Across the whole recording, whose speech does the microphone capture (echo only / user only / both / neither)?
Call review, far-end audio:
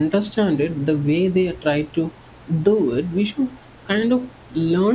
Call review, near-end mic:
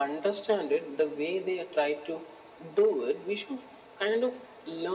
echo only